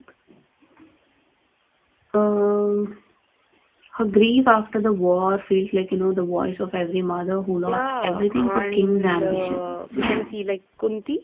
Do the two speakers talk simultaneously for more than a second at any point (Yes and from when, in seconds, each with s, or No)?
Yes, from 7.7 s